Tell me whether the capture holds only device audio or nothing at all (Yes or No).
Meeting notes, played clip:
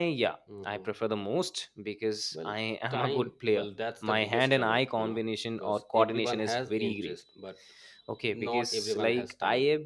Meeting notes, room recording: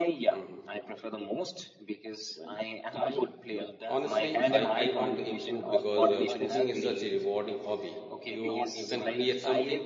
No